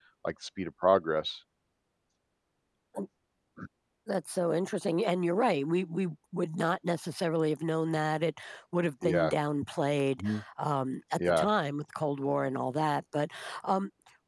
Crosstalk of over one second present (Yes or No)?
No